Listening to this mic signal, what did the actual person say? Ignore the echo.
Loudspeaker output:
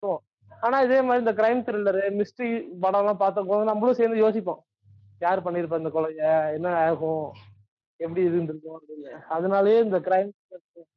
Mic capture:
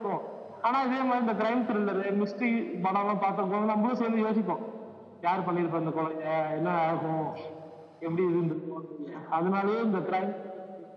none

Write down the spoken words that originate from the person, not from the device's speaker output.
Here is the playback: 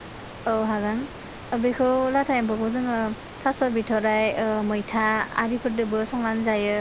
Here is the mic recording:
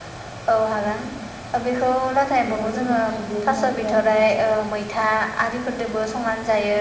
बिफांफोरखौ हानानैबो रुना होयो आरो नोंथां

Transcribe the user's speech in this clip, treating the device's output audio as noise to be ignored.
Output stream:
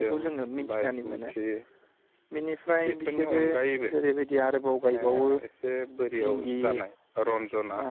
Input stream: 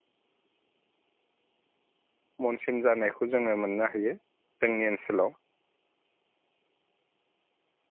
मनसिन जानायखौ जोङो मोननो हायो जोंनि ओनसोलाव

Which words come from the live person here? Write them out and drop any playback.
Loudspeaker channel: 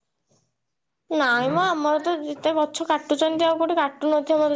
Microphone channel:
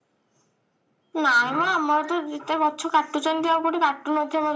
none

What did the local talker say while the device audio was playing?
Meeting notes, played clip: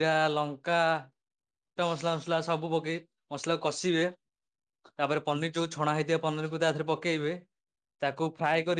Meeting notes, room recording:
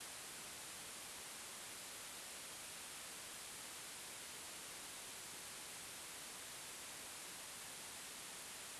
none

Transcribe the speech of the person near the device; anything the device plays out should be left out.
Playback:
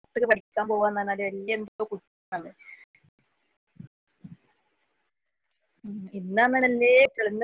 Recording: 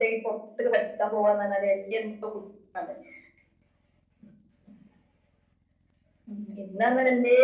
none

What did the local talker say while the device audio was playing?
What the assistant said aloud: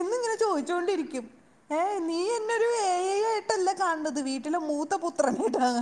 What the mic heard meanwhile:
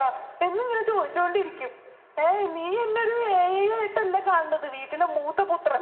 none

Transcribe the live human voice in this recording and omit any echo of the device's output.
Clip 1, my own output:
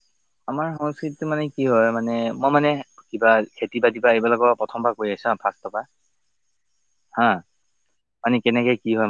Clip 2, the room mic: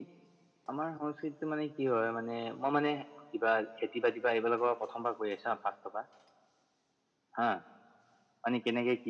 none

